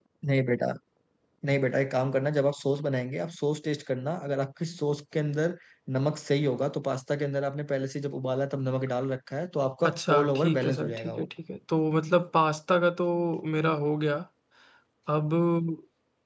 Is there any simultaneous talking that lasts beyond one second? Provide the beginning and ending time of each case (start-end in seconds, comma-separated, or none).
9.8-11.2